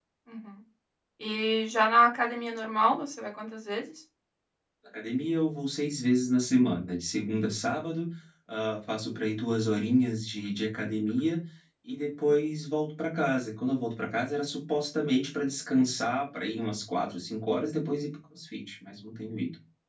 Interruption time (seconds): none

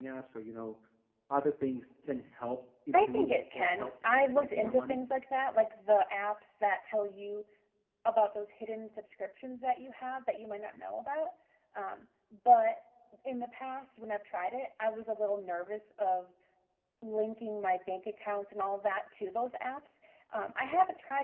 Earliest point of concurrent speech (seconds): 2.9 s

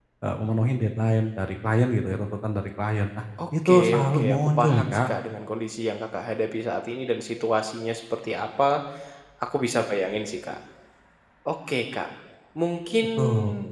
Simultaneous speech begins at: 3.7 s

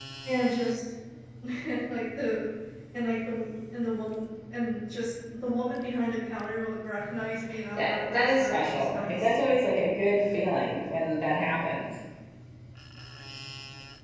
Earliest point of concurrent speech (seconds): 7.8 s

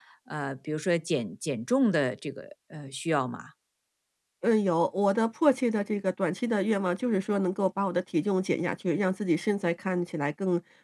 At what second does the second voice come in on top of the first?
none

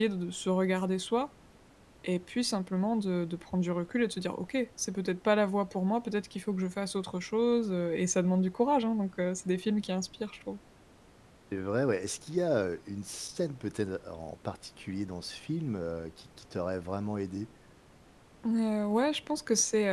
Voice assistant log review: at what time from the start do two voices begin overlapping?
none

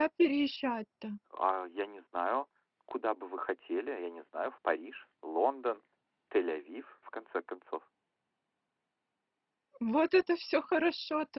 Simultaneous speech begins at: none

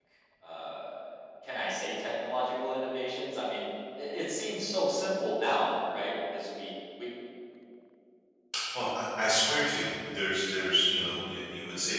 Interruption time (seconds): none

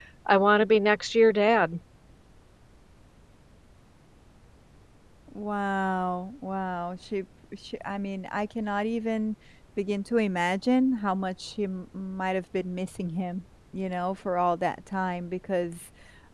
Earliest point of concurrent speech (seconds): none

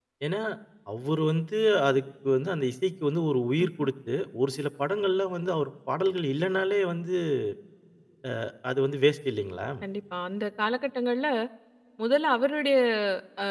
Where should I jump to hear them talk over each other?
none

